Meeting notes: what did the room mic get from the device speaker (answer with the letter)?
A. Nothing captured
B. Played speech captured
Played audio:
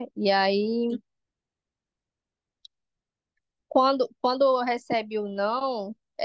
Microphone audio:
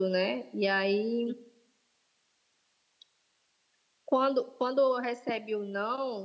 B